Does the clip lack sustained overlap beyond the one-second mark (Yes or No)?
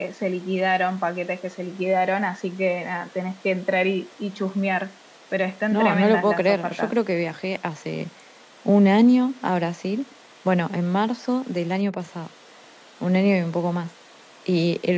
No